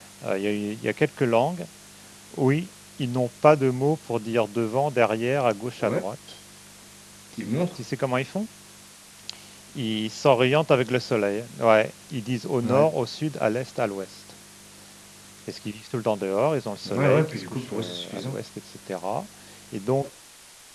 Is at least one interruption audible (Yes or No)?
Yes